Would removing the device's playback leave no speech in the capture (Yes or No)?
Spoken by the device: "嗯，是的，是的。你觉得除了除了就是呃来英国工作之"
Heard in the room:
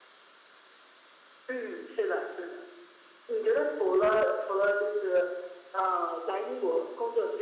Yes